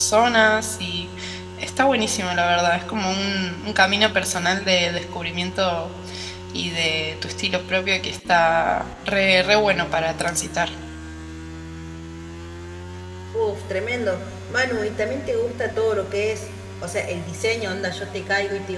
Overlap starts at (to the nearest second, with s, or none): none